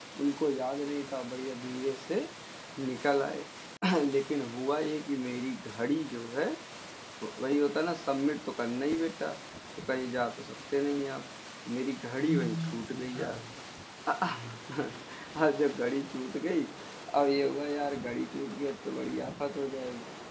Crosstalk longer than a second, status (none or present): present